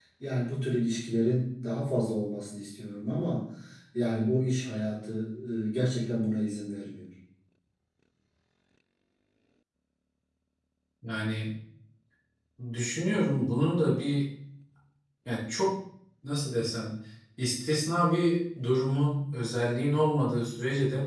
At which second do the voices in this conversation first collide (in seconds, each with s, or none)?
none